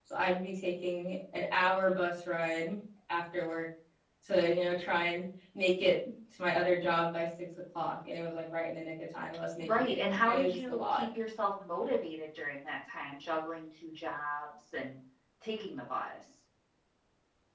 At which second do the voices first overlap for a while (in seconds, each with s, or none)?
9.6 s